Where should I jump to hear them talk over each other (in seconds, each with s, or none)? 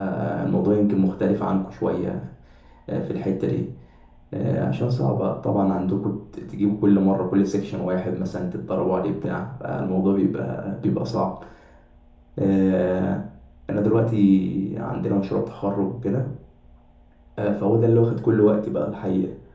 none